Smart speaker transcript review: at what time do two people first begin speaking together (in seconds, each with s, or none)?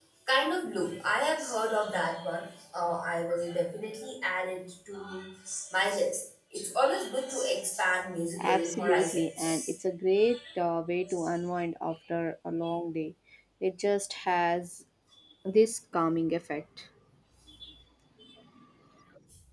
8.4 s